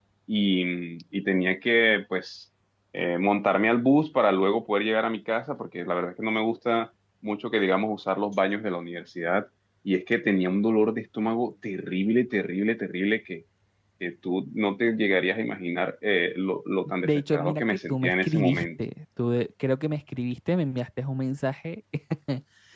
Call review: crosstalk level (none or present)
present